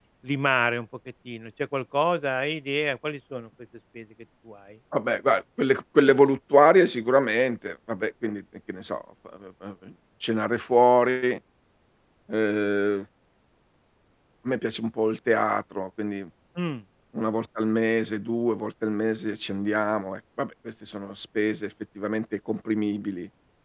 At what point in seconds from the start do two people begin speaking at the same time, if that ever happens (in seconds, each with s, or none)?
none